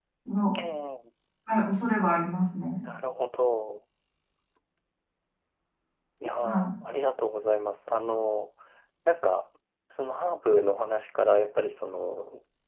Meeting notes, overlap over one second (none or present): none